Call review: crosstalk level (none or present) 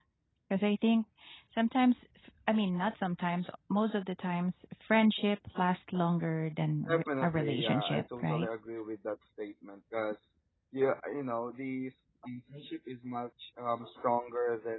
present